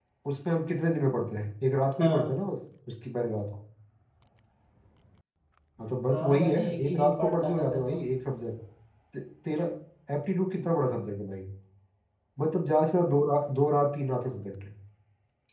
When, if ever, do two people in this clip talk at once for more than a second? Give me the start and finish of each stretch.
6.1-8.0

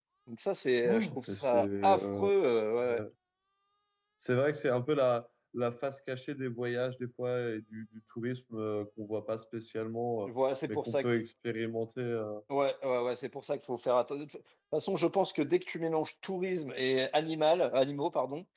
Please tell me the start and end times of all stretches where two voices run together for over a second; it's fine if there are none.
0.8-2.3

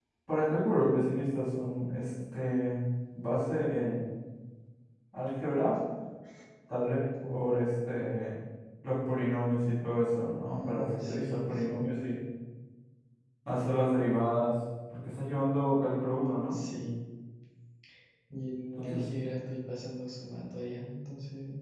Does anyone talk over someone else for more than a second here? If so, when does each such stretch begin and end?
10.5-11.7

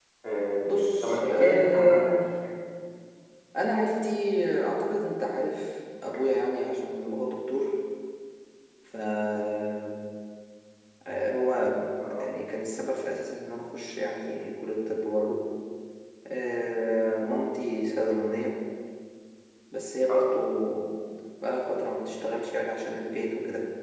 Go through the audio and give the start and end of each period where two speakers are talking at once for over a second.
0.7-2.2

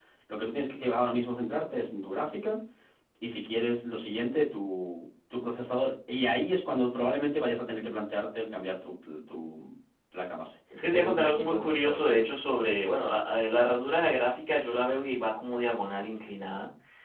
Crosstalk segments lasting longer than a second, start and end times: 10.8-12.3

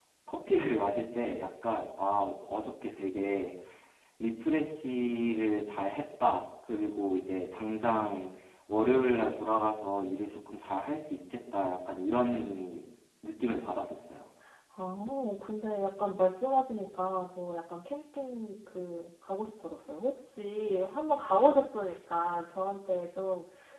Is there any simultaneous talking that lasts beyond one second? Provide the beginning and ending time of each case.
none

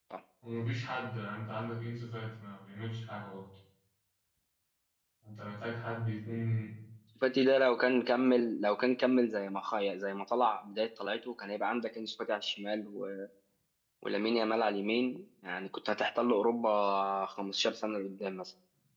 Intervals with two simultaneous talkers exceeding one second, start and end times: none

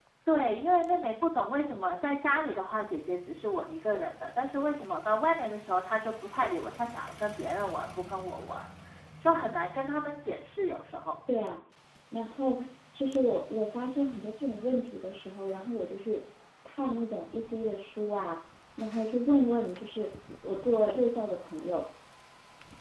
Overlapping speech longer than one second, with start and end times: none

